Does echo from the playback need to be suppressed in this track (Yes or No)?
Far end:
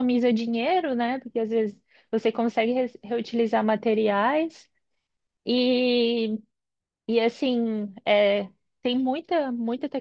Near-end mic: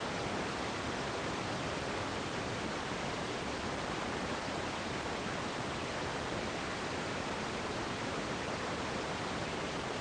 No